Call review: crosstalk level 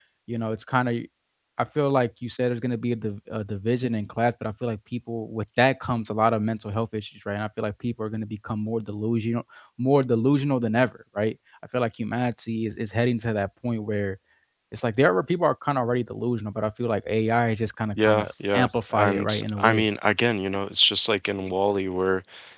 present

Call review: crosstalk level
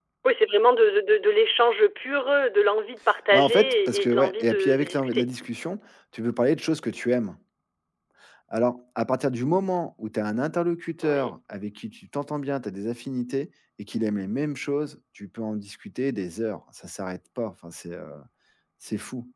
present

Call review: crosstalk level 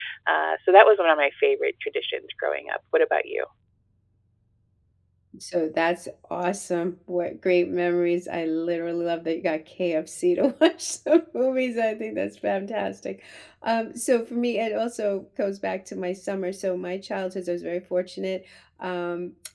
none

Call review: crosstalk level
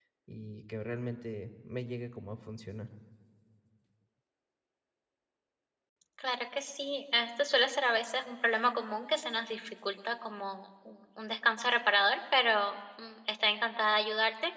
none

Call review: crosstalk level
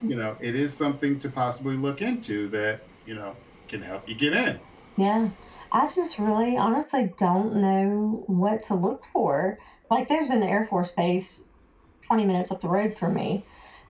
none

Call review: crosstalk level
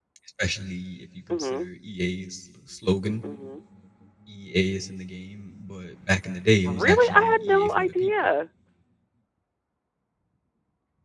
present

